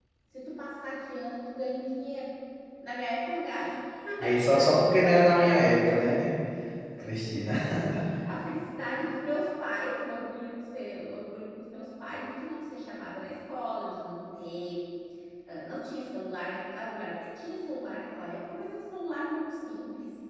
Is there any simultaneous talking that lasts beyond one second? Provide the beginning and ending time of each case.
4.3-5.7

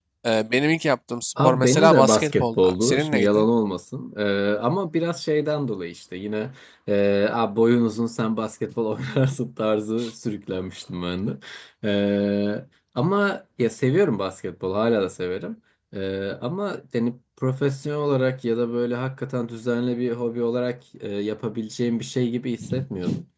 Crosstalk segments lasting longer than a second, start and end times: 1.4-3.5

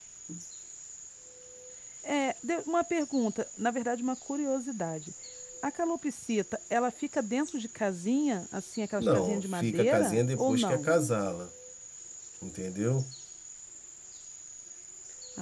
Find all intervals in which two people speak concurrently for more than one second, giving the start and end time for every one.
9.0-10.9

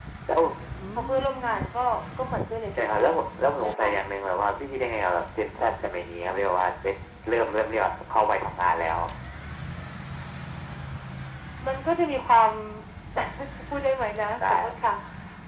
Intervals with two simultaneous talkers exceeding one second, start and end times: none

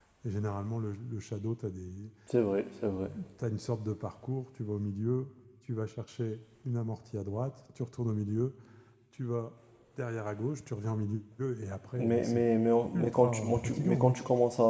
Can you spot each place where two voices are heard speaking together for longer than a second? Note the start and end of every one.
12.9-14.1

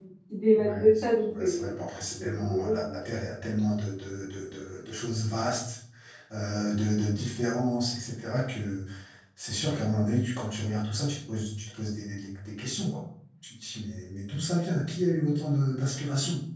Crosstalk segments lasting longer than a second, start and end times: 0.6-1.8

